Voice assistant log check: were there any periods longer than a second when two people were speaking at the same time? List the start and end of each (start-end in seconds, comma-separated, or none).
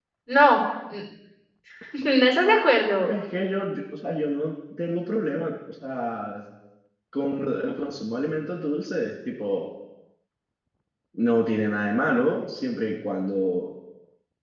none